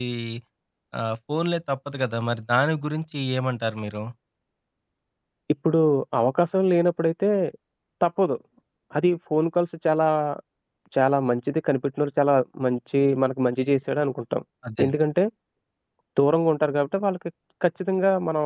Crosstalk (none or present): none